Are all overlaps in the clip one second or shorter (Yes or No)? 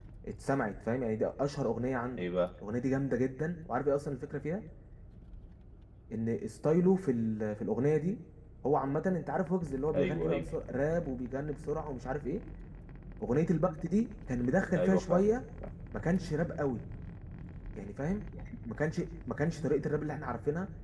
Yes